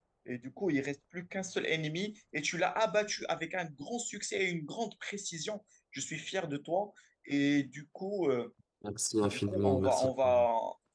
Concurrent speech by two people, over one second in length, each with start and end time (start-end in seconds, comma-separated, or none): 9.2-10.5